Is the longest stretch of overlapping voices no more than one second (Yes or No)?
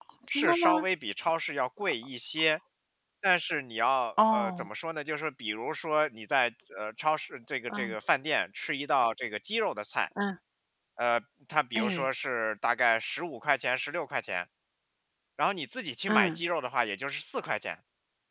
Yes